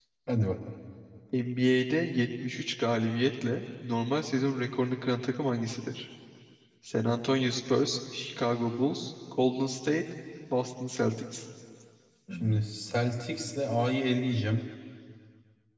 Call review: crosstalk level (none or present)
none